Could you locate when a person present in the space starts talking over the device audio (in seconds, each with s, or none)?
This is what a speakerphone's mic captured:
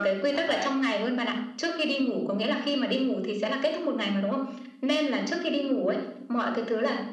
0.3 s